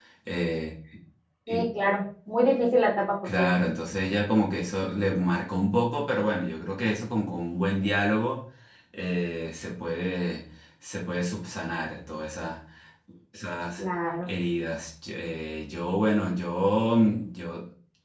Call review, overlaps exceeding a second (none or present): none